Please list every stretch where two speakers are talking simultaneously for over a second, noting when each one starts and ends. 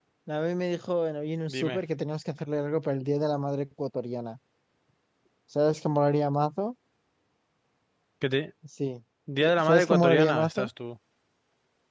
9.4-10.7

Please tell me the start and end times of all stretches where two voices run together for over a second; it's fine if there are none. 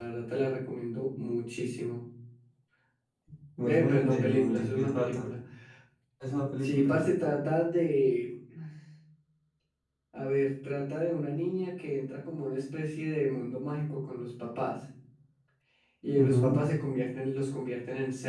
3.6-5.3

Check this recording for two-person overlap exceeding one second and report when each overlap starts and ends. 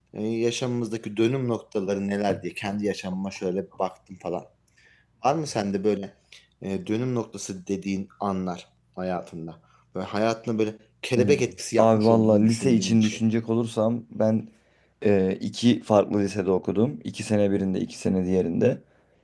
11.8-13.2

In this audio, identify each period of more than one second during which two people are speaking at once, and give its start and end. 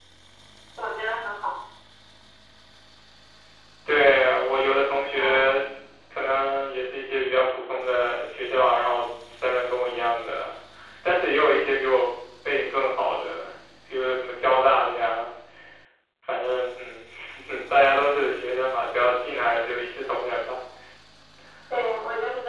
none

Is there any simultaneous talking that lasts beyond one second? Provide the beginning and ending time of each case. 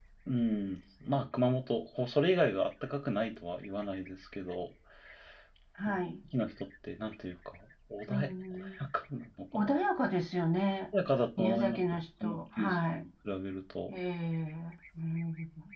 11.4-13.1

